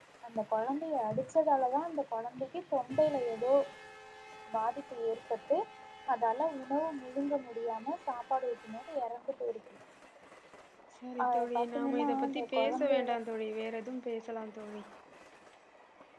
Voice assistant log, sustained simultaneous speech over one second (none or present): present